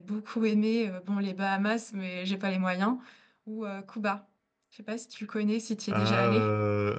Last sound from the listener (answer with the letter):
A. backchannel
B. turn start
B